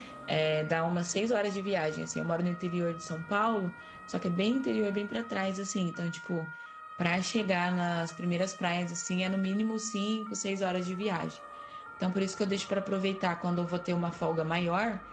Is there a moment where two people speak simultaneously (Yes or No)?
No